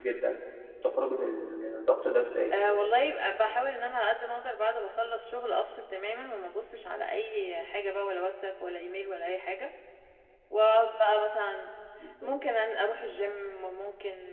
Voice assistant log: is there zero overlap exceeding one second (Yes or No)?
Yes